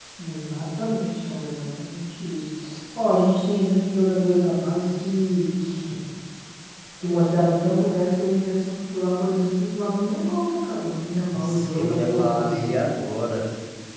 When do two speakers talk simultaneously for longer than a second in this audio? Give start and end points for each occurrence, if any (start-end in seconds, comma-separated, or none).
11.3-12.6